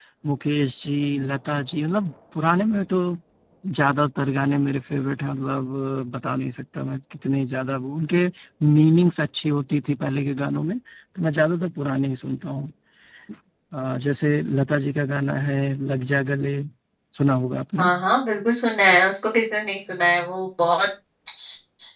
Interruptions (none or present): none